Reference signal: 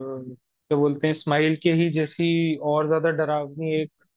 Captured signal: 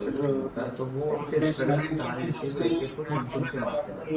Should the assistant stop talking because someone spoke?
Yes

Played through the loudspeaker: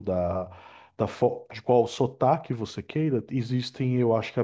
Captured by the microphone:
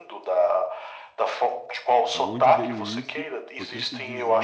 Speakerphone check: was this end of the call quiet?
No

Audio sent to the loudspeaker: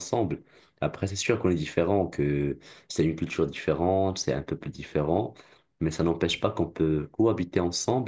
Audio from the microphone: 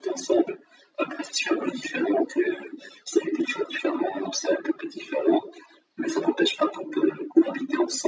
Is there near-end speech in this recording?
No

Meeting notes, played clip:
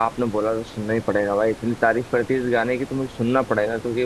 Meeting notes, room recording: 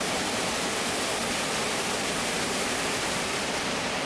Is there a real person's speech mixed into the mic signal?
No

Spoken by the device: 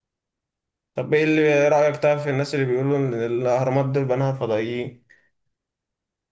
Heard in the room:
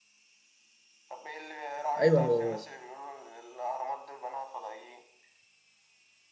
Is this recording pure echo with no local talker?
No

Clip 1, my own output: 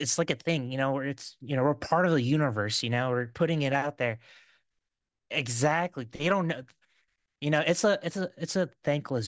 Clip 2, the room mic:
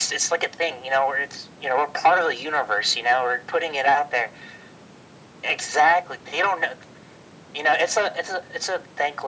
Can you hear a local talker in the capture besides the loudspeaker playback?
No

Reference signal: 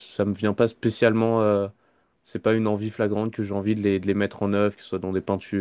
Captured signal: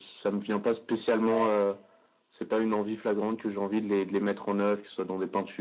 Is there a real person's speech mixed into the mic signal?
Yes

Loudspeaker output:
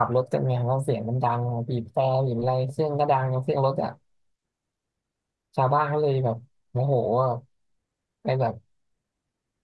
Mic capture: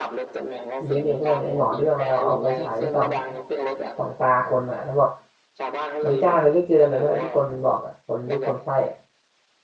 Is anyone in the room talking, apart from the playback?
Yes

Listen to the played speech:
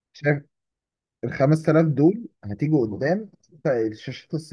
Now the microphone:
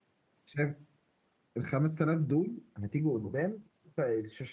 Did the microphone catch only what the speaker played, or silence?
Yes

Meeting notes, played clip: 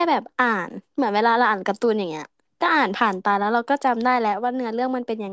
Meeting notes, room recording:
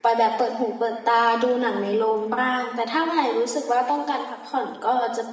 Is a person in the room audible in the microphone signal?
Yes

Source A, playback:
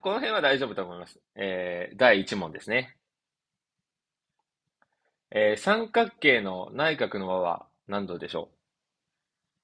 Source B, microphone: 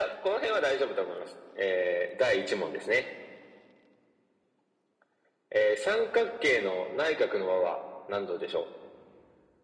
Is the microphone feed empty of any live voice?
Yes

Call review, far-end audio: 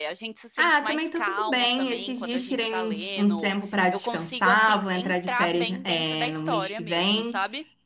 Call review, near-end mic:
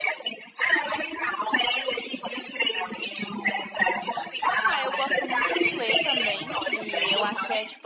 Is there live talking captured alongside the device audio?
Yes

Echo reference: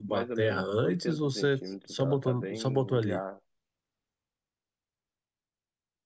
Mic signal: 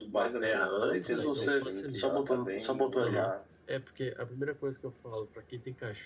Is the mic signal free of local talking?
No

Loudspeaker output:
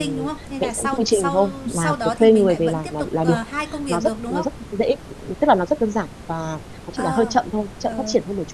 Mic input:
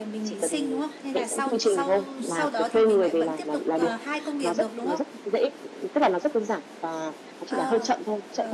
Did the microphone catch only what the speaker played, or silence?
Yes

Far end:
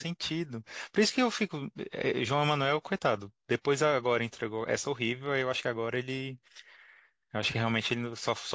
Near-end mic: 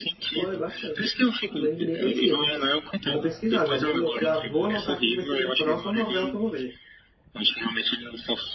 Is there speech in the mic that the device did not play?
Yes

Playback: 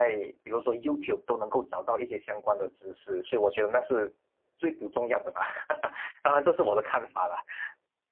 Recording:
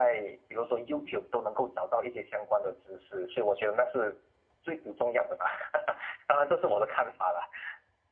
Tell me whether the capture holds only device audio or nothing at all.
Yes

